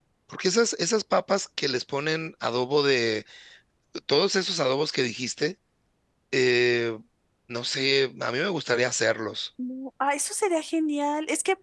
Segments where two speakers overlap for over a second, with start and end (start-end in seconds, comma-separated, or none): none